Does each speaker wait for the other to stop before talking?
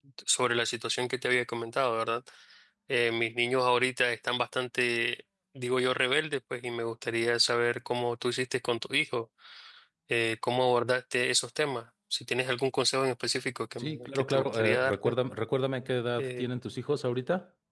No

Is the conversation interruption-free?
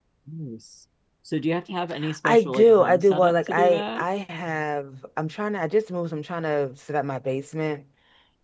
No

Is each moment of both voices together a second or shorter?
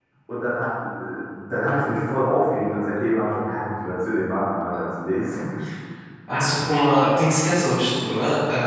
Yes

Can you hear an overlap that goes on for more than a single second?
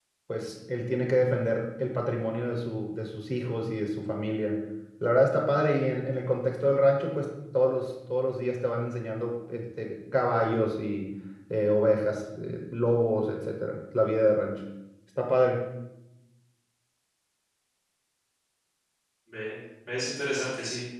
No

